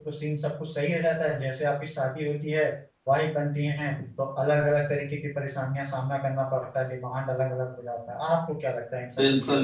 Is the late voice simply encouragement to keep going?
No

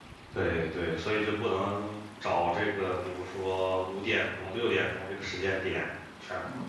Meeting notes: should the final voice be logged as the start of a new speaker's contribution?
No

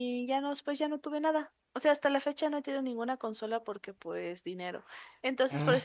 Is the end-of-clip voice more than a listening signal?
No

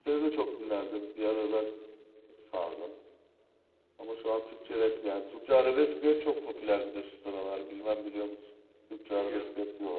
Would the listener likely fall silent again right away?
No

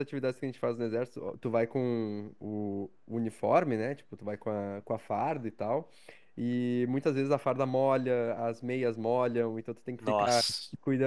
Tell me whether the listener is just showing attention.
Yes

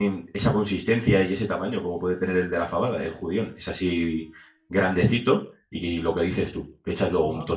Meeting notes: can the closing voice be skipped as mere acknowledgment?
Yes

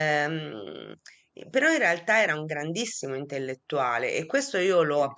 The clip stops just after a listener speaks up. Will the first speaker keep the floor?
Yes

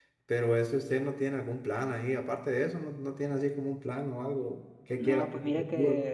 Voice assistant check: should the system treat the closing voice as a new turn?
Yes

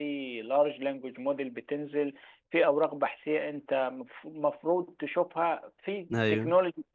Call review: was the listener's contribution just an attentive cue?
Yes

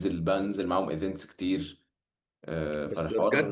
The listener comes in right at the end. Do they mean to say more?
Yes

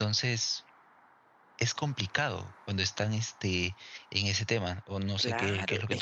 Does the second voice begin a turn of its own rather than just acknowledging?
Yes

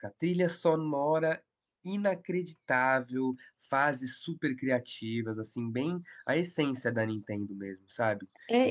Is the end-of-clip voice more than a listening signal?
Yes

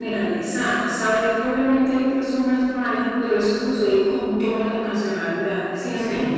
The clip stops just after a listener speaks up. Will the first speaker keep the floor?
Yes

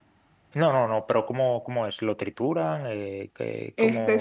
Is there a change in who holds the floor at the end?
Yes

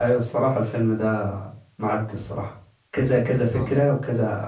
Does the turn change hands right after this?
No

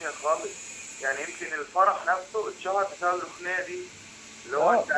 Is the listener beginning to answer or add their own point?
Yes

